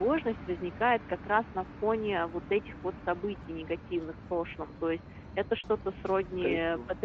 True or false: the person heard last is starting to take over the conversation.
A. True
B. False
B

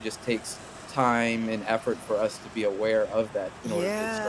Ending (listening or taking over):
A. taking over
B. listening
A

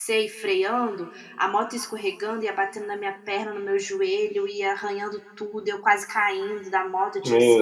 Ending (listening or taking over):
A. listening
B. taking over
A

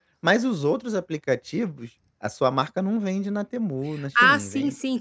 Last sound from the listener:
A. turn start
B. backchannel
A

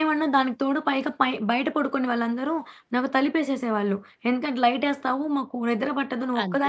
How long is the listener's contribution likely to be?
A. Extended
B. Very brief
A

